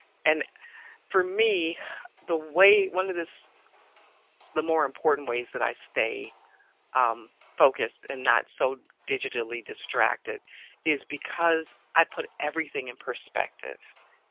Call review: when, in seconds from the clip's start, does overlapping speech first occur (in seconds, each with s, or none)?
none